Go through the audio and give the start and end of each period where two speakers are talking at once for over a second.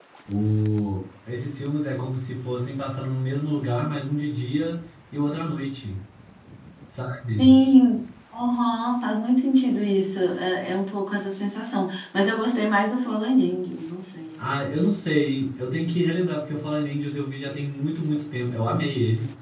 none

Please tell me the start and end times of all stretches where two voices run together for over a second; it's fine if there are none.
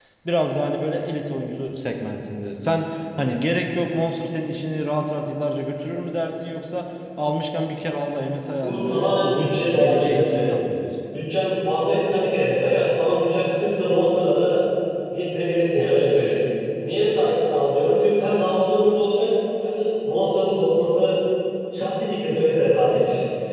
8.6-10.4

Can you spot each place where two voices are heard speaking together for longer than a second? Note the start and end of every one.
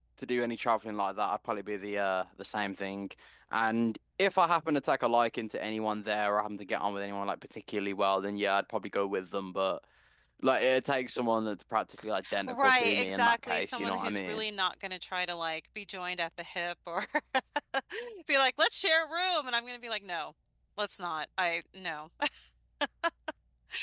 12.5-14.4

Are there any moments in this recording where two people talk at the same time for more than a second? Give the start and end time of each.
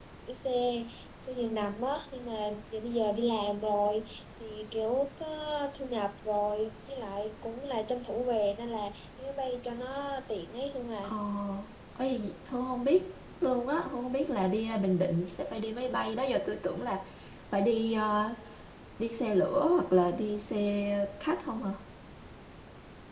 none

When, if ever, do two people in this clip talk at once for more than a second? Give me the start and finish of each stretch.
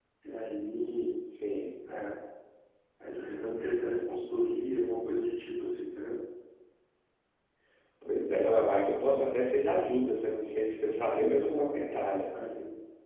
none

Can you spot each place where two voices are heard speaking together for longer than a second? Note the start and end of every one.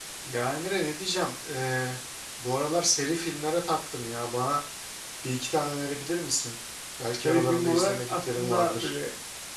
7.2-8.9

